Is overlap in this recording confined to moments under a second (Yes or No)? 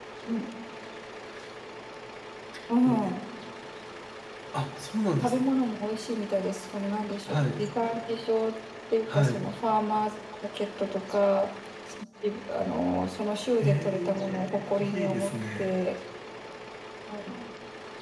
No